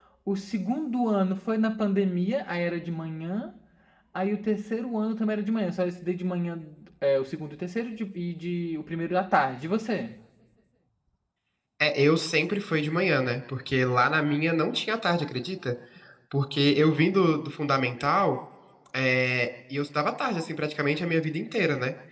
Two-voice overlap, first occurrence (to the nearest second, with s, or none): none